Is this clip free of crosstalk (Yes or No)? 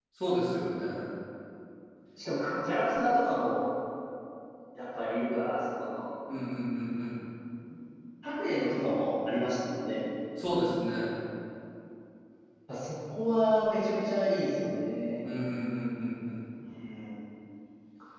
Yes